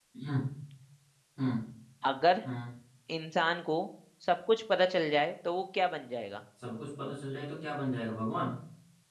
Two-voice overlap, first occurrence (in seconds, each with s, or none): none